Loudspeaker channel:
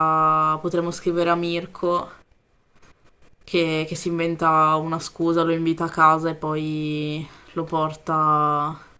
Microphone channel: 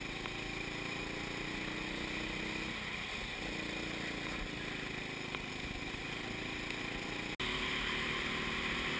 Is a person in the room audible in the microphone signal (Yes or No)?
No